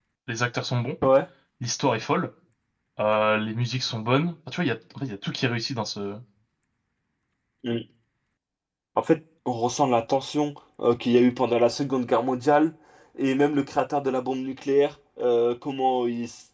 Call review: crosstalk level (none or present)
none